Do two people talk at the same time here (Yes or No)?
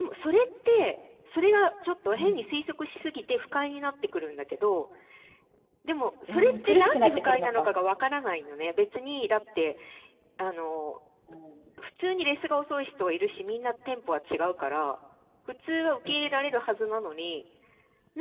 Yes